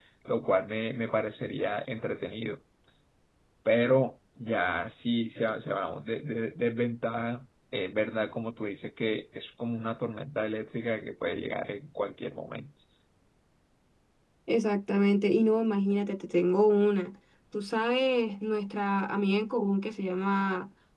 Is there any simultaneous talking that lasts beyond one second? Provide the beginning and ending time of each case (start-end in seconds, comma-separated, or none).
none